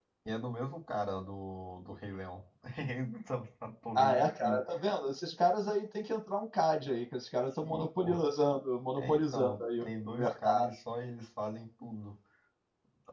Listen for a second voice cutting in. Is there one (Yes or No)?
Yes